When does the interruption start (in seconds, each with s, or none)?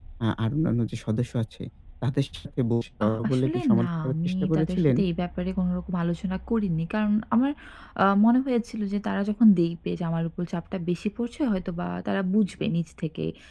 3.0 s